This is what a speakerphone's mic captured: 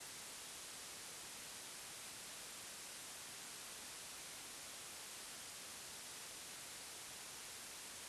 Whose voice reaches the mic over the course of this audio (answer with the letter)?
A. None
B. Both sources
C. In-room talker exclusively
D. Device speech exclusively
A